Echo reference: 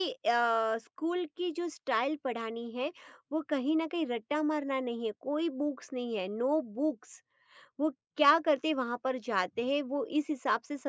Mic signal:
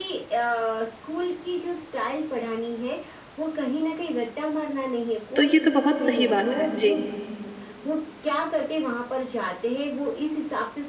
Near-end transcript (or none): तो ये तो बहुत सही बात है जी